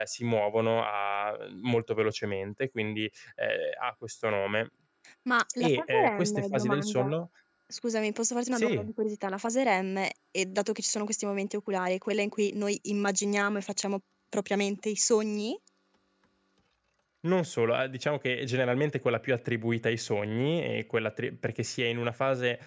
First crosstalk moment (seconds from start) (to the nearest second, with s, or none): 6 s